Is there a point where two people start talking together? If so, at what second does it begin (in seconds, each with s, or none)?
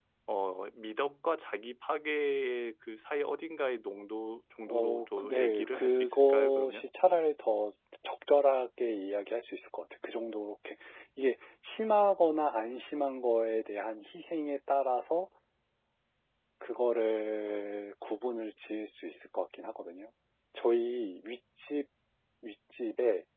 4.7 s